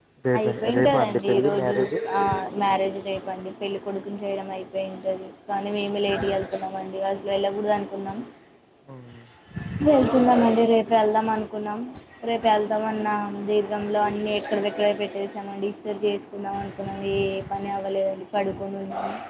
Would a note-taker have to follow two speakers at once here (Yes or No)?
Yes